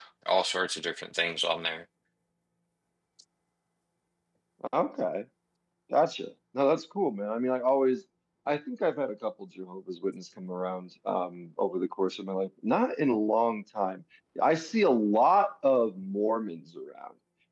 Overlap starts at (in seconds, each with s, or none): none